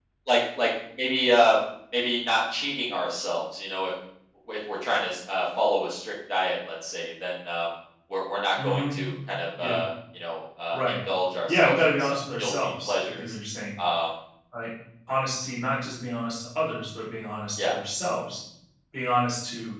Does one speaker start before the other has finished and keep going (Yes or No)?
Yes